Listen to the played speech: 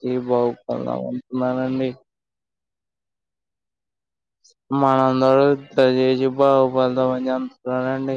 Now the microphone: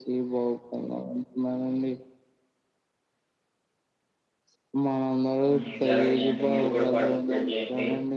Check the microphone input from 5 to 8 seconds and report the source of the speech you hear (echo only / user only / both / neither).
both